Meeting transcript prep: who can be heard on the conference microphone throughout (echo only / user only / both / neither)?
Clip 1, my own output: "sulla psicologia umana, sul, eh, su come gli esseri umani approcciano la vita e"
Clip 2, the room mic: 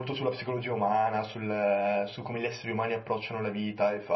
echo only